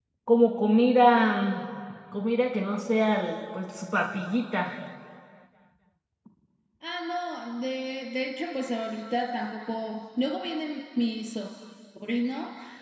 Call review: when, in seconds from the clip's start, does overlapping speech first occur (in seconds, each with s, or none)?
none